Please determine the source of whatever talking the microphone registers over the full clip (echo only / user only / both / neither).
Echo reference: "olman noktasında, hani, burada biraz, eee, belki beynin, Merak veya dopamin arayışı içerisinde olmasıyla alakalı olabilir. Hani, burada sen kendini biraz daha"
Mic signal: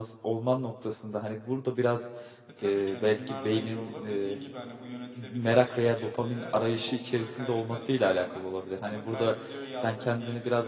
both